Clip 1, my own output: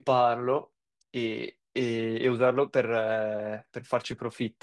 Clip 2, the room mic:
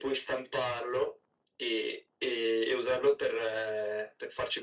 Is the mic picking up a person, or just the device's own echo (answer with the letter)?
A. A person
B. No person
B